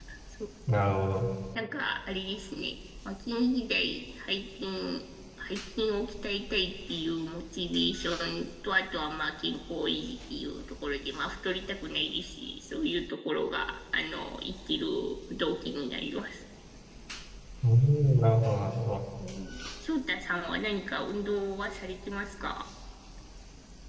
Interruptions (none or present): none